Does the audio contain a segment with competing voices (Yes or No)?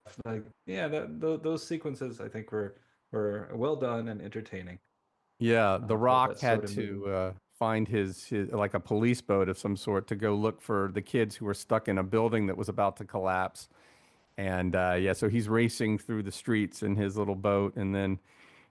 Yes